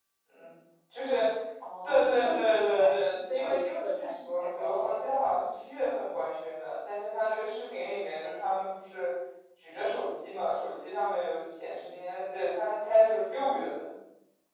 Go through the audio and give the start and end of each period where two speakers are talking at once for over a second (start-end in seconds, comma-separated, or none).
1.8-5.0